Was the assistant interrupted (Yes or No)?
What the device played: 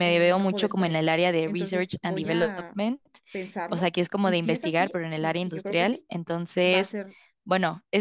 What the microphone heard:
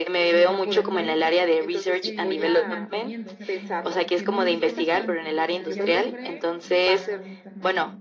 Yes